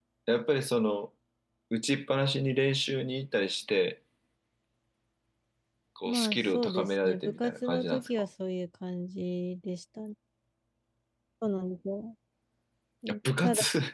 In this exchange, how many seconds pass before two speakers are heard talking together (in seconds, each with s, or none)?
6.0 s